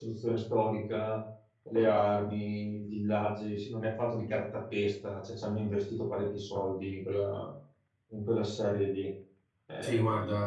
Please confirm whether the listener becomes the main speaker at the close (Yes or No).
Yes